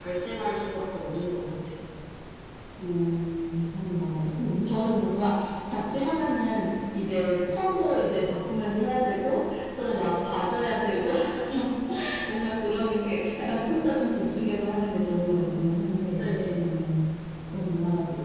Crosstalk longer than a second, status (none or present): none